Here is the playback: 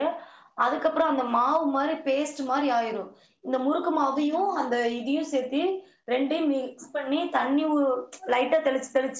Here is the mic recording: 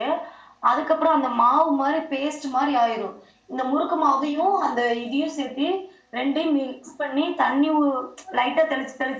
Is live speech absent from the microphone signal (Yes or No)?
Yes